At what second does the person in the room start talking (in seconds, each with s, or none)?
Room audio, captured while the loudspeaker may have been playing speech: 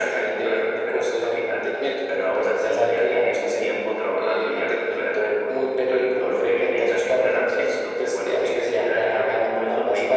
none